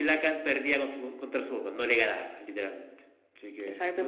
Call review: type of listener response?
taking over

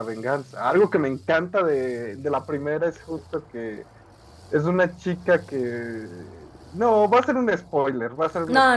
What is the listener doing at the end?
taking over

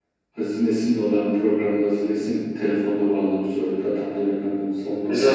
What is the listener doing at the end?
taking over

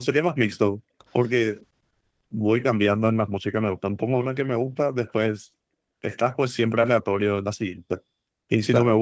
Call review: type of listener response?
listening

